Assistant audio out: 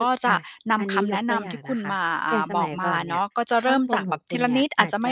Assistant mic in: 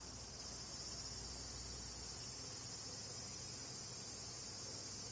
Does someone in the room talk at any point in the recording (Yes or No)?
No